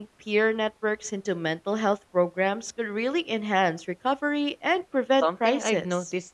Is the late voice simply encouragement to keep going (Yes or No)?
No